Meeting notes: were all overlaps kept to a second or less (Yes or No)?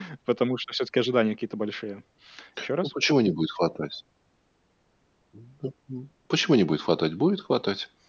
Yes